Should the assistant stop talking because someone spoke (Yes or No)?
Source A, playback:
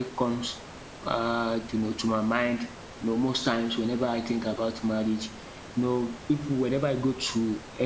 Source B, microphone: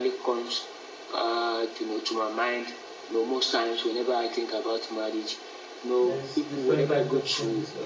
Yes